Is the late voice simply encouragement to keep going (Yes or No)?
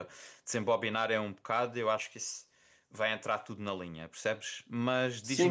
No